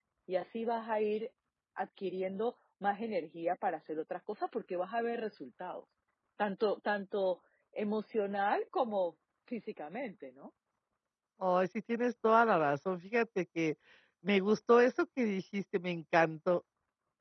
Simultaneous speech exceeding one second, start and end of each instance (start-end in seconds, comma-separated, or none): none